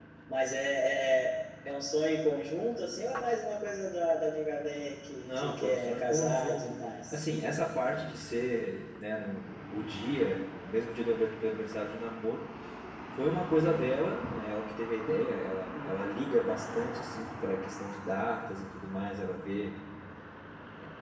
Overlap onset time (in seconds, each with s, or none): 5.2 s